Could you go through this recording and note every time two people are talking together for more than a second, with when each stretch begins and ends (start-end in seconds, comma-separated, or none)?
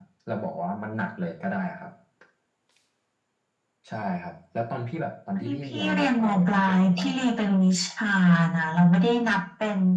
5.3-7.3